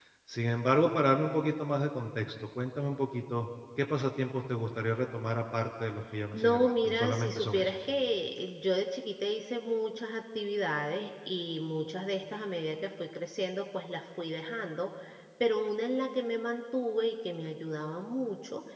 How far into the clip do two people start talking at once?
6.3 s

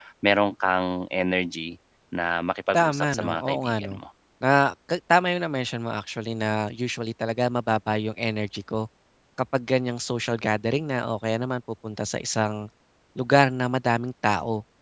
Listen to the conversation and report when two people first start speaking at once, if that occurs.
2.7 s

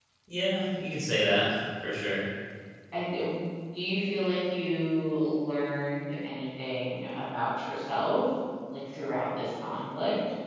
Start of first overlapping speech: none

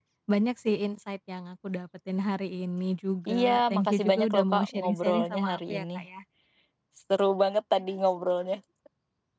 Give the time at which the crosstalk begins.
3.3 s

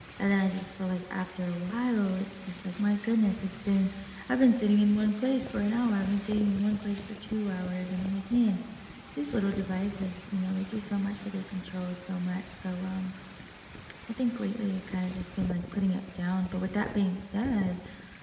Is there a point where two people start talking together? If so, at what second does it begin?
none

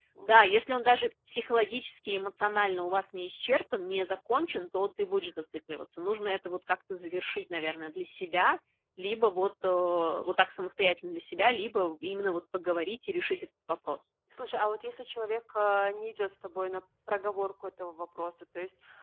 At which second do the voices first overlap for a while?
none

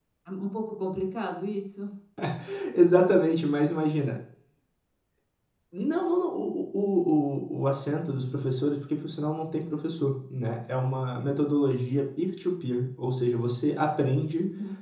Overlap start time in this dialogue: none

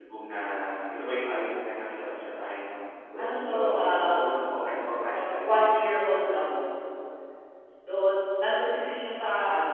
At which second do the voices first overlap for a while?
3.2 s

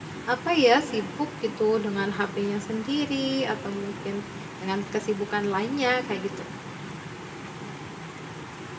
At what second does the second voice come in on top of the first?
none

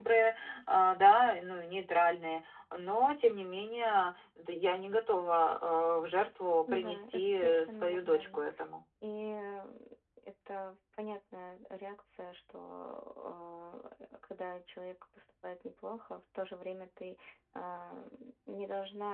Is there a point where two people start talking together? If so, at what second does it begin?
6.7 s

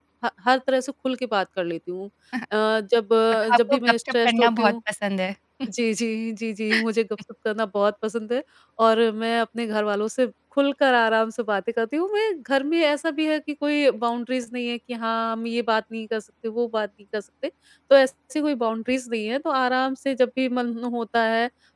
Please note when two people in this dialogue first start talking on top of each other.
3.3 s

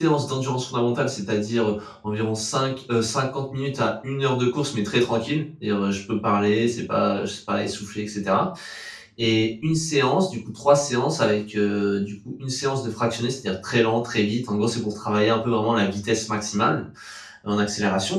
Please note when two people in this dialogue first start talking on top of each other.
none

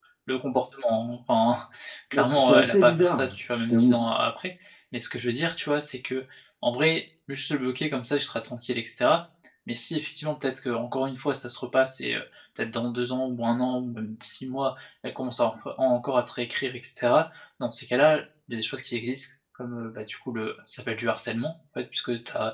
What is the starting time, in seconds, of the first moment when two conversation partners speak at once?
2.1 s

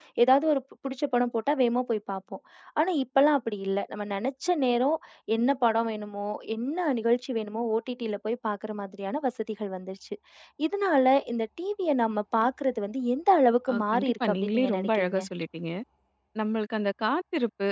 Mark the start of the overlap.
13.7 s

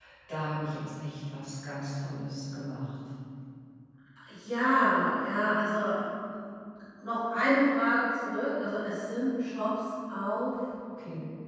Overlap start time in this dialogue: none

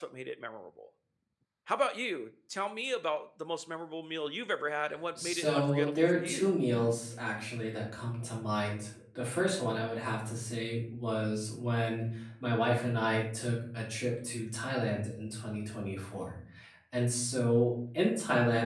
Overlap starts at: 5.2 s

